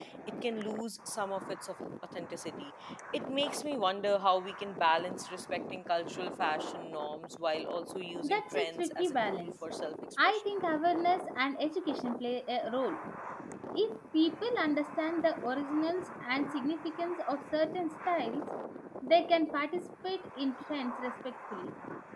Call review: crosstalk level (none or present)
present